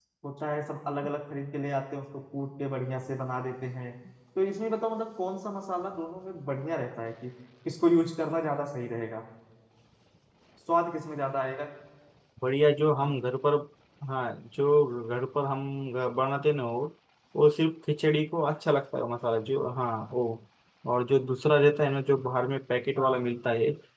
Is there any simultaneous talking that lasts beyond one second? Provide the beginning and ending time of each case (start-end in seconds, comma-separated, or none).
none